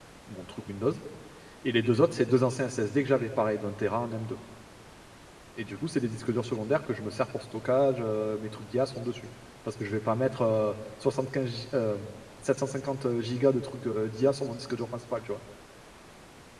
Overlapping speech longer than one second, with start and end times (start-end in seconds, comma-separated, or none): none